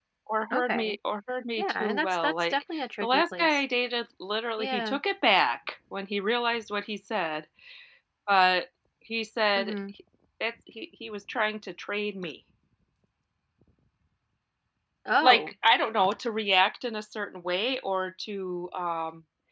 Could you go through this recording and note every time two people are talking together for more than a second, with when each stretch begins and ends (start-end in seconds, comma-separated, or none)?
1.6-3.6